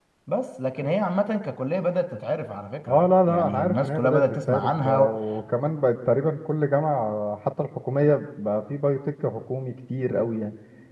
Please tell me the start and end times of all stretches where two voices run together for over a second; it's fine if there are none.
2.9-5.1

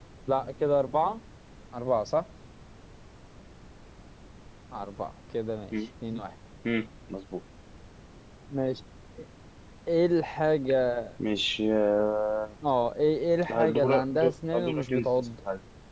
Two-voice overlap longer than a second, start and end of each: 13.5-15.3

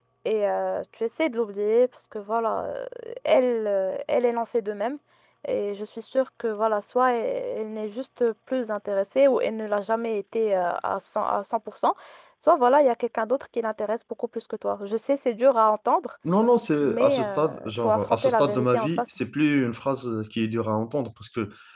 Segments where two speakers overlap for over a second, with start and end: 16.8-19.0

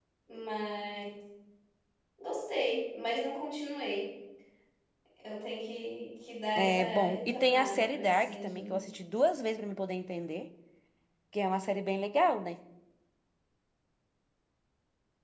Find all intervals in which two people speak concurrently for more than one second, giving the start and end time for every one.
6.6-8.8

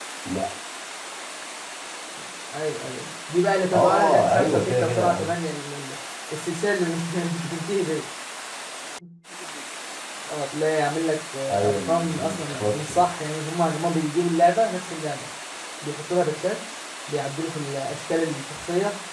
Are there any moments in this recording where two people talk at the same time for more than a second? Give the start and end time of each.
3.7-5.3, 11.5-13.0

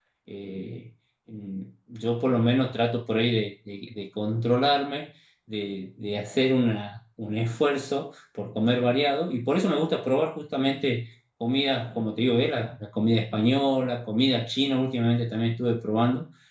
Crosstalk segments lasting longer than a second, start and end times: none

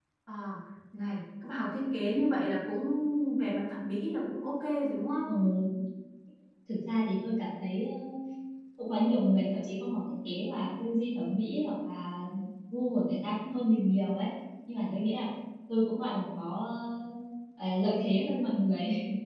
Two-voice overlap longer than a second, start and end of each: none

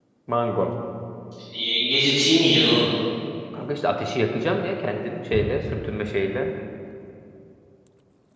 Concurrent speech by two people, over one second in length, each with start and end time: none

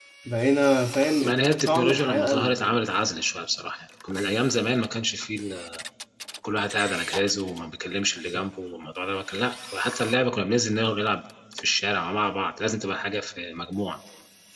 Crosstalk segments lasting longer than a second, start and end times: 1.2-2.8

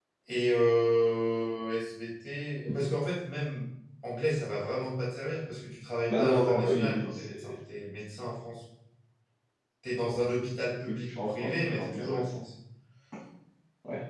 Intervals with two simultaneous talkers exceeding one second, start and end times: 6.1-7.6, 10.9-12.2

